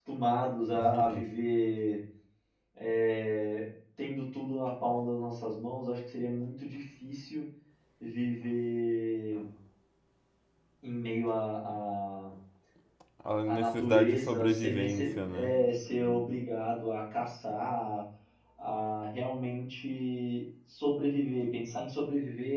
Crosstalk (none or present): present